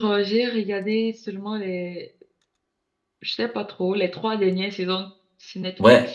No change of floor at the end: No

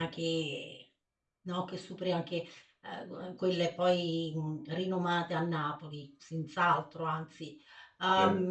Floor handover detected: No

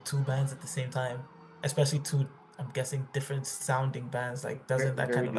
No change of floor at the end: No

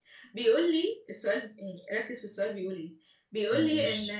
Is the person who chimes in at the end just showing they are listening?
Yes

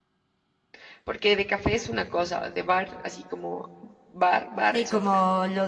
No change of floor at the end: No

